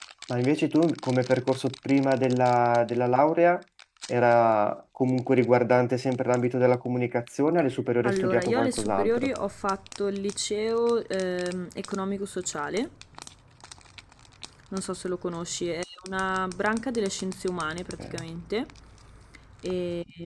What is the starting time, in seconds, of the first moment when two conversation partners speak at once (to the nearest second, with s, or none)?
8 s